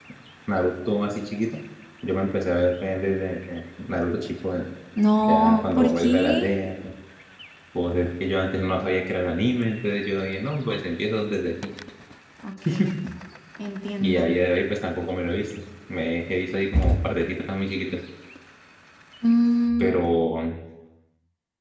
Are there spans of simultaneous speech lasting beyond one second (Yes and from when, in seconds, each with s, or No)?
Yes, from 5.2 s